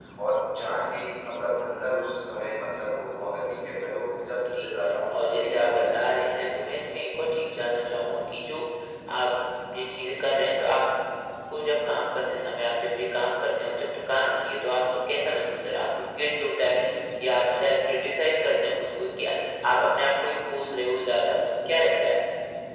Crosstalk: present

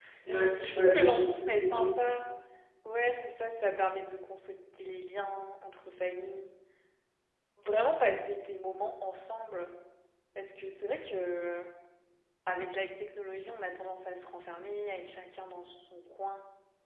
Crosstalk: present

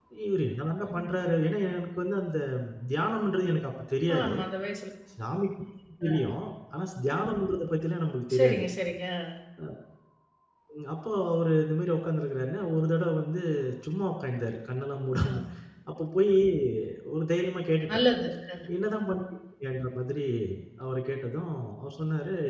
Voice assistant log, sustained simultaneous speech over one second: none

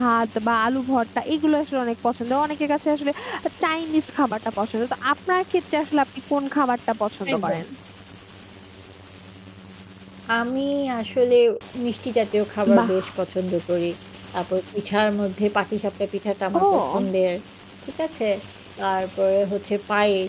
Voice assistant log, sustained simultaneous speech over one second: none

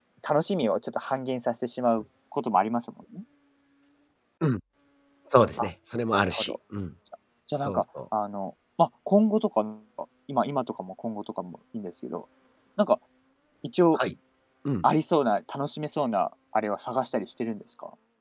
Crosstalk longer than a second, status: none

